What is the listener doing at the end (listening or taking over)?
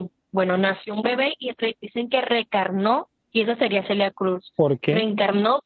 listening